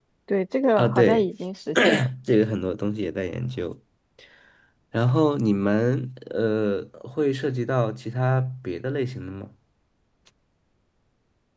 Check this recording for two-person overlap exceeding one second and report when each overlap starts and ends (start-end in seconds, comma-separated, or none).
none